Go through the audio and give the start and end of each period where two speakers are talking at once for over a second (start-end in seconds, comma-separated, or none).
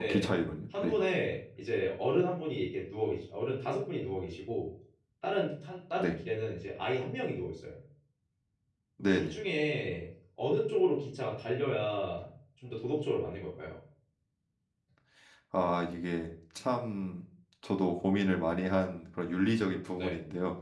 none